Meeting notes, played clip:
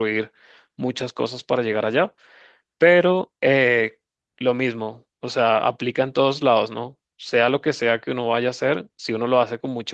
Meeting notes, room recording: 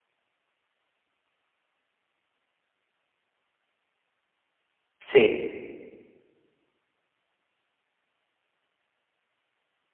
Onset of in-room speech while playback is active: 5.0 s

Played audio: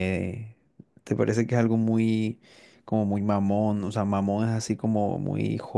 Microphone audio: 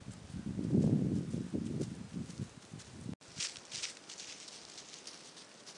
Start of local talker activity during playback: none

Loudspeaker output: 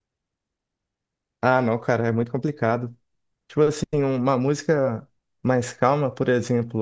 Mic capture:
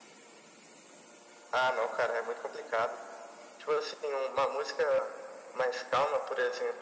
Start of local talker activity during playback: none

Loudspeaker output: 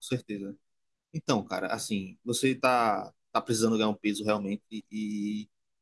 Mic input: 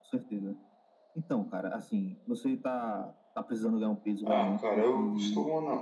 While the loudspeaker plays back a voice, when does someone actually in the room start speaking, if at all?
4.3 s

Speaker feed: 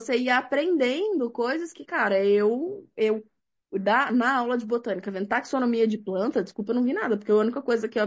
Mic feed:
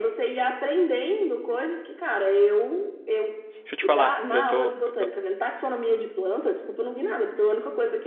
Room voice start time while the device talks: 3.6 s

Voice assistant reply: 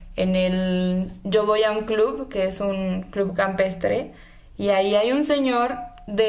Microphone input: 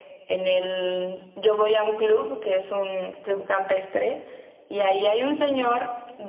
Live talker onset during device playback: none

